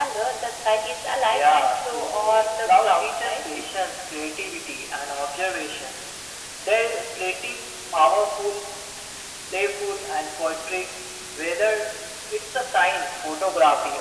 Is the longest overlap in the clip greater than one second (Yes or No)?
Yes